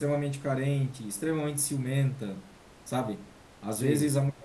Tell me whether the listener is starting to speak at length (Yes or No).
No